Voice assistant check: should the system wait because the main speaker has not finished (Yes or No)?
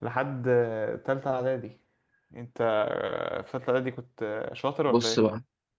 No